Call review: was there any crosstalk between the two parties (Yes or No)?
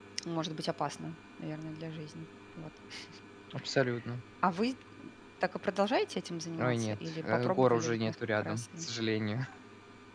Yes